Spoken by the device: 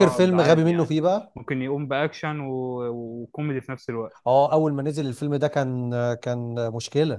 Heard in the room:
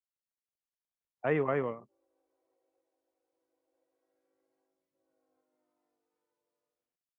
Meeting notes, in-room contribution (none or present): present